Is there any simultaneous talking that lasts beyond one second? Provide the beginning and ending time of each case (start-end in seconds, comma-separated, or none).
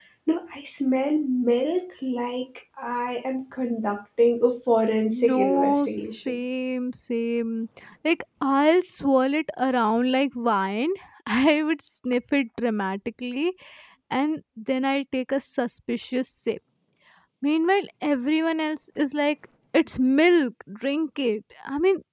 5.1-6.4